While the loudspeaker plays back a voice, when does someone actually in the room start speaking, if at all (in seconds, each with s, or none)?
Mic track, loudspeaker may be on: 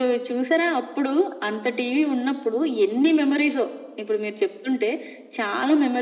none